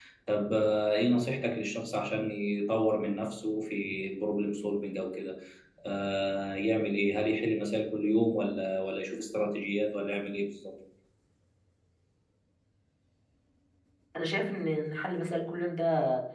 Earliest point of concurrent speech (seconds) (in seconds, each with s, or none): none